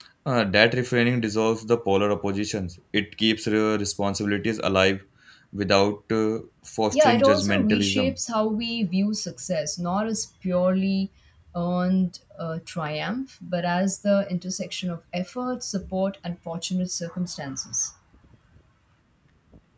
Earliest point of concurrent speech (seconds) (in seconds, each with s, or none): 6.9 s